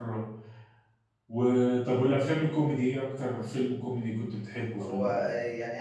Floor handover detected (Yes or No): Yes